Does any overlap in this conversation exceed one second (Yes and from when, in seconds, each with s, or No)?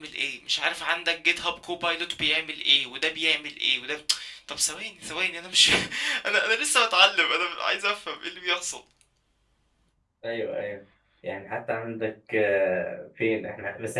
No